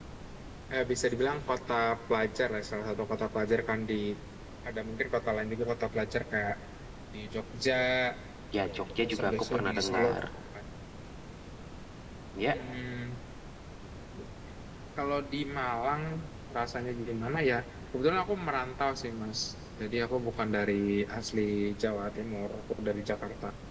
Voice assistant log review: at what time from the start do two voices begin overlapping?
9 s

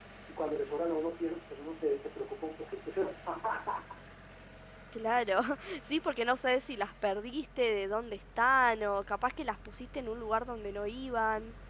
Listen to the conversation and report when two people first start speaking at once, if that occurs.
none

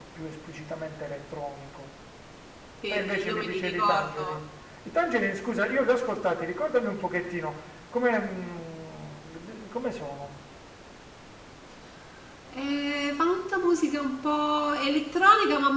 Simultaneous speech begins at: 3 s

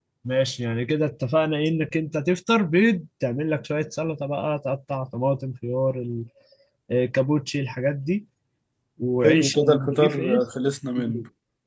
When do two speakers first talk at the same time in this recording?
9 s

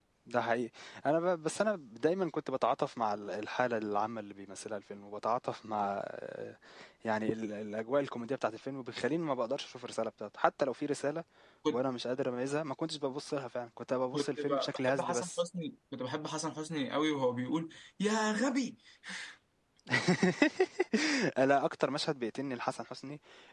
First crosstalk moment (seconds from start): 14 s

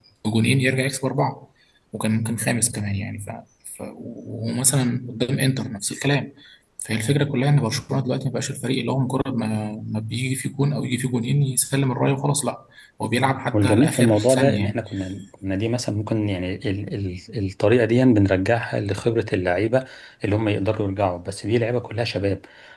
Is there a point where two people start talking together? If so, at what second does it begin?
14 s

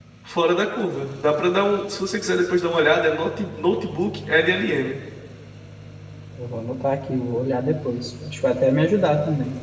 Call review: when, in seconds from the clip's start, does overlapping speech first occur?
none

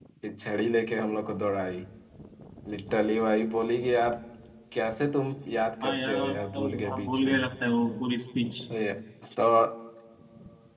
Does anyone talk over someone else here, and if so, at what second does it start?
6 s

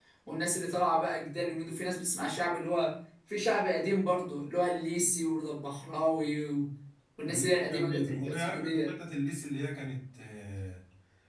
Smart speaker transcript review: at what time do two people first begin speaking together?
7 s

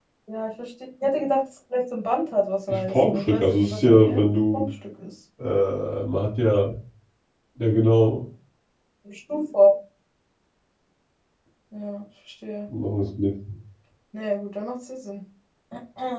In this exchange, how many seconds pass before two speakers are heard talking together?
3 s

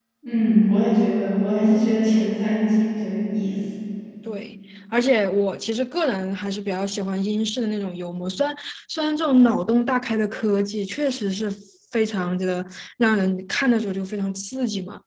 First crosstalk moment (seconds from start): none

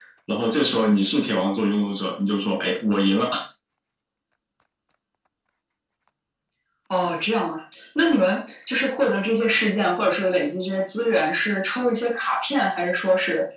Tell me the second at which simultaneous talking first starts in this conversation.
none

